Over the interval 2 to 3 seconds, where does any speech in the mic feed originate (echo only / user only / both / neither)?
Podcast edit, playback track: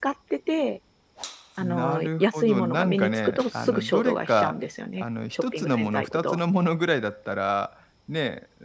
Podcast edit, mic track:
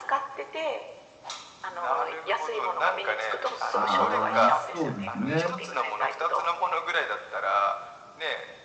echo only